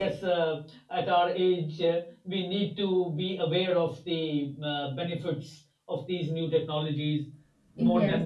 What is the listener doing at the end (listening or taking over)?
taking over